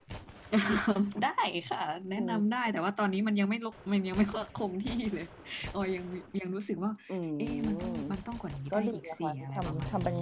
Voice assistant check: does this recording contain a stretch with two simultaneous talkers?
Yes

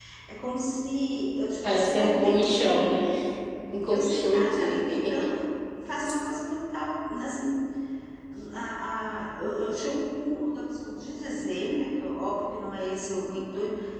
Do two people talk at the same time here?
Yes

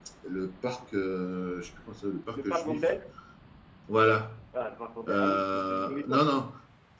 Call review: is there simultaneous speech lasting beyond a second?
Yes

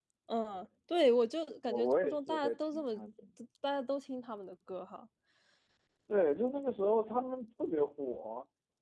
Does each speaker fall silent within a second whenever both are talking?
No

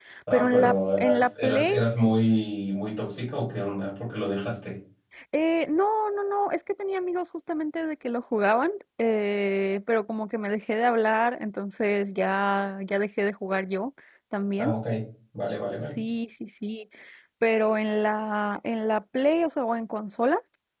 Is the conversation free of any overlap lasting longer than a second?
No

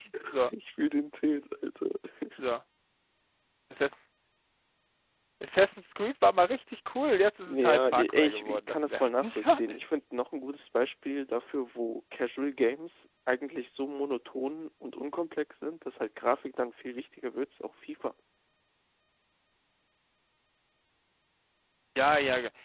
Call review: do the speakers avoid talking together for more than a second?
No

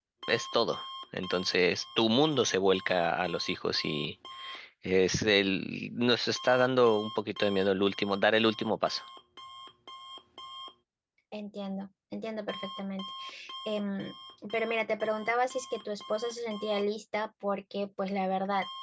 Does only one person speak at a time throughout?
Yes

